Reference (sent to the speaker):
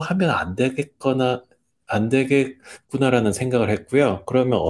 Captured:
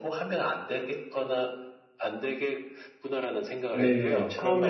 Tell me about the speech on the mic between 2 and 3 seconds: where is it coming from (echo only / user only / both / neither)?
echo only